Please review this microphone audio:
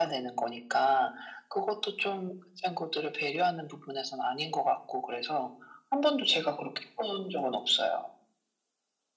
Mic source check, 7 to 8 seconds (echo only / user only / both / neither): echo only